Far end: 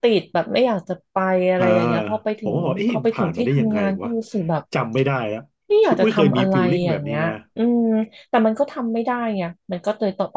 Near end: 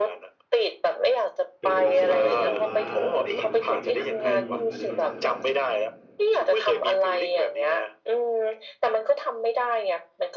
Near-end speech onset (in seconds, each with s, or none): 1.6 s